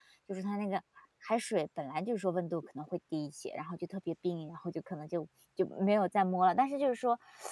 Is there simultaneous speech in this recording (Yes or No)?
No